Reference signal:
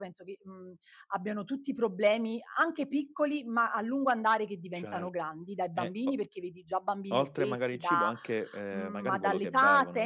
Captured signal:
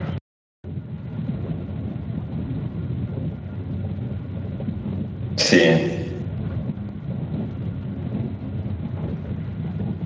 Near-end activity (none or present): present